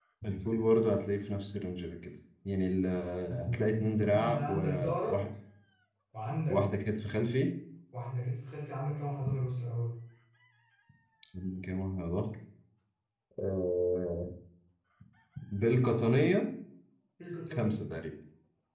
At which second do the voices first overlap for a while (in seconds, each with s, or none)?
3.5 s